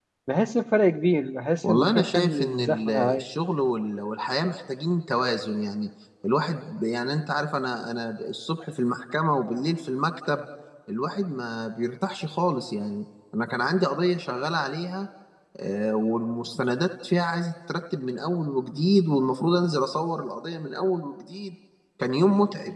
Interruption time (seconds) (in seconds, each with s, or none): 1.6 s